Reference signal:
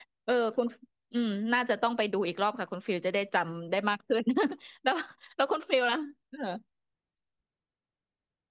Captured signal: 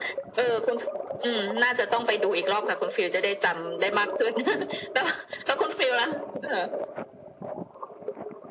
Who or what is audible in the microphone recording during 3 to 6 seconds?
echo only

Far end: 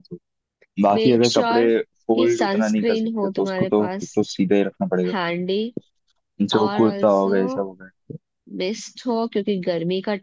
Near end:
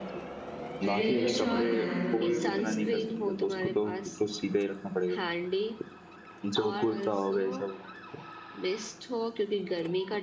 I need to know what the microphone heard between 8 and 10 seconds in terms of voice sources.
echo only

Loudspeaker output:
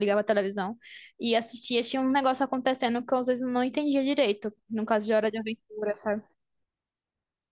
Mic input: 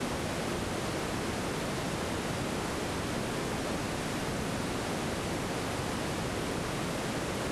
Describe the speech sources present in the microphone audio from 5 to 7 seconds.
neither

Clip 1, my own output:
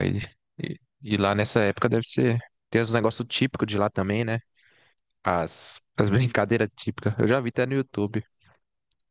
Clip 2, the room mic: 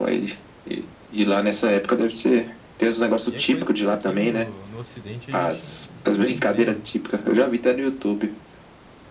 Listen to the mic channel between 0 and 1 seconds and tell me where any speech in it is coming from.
echo only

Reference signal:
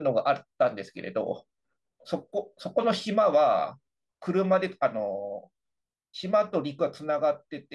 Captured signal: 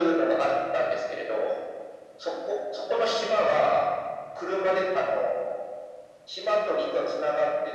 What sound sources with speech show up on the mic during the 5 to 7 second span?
echo only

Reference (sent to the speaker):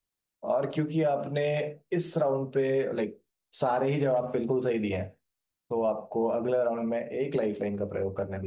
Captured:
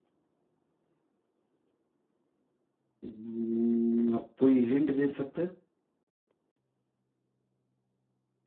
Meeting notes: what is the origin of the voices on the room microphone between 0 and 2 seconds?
neither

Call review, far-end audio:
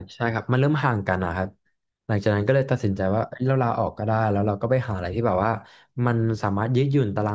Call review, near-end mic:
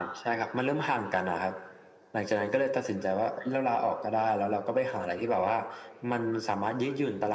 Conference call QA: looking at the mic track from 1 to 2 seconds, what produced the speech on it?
echo only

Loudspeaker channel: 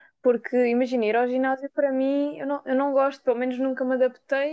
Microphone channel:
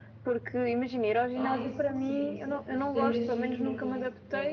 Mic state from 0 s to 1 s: echo only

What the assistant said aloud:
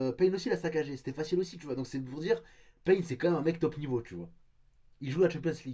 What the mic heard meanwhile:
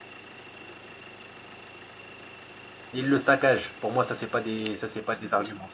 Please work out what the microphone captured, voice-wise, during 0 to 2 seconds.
neither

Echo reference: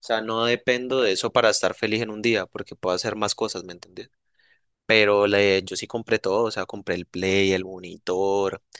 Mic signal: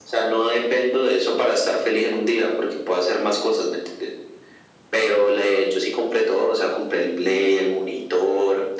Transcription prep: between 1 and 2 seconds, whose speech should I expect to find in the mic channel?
echo only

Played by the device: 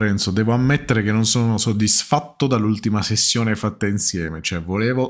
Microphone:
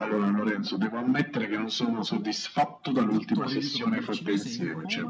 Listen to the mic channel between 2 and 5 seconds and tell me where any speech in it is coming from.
both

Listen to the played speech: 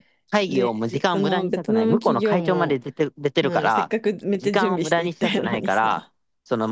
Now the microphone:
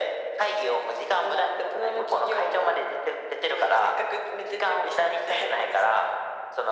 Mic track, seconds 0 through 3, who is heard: echo only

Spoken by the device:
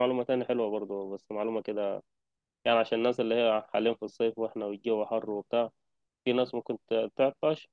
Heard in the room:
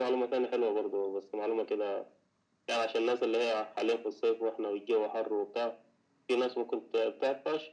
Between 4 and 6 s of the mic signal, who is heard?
echo only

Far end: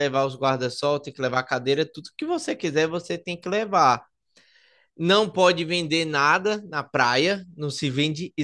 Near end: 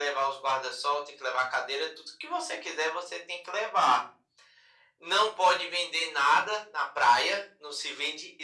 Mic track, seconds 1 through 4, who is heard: echo only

